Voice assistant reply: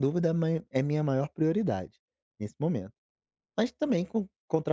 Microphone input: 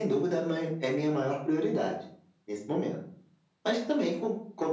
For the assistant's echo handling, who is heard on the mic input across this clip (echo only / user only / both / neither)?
echo only